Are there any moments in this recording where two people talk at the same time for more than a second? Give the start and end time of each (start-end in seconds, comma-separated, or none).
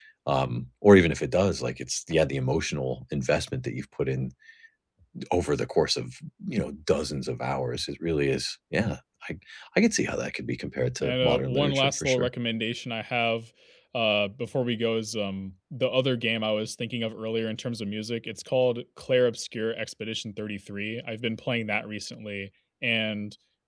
11.0-12.3